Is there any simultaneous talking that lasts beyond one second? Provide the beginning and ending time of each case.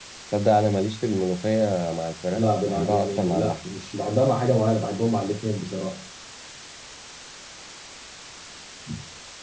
2.4-3.7

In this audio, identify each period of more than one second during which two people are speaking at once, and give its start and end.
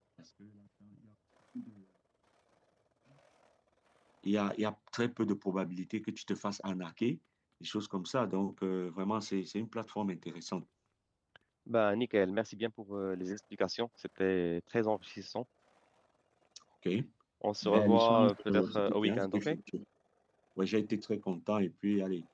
17.6-19.5

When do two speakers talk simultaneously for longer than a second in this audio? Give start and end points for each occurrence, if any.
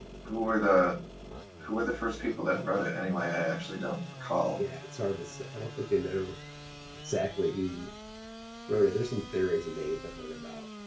none

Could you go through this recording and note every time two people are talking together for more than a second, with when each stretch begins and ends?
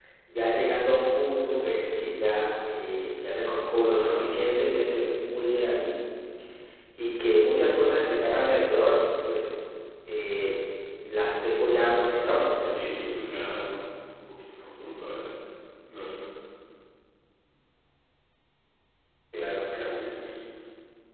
3.9-5.1

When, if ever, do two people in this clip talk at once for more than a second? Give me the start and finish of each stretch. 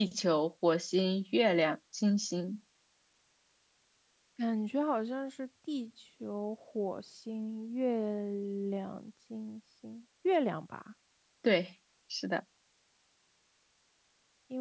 none

